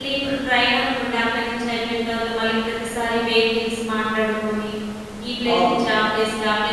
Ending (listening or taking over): listening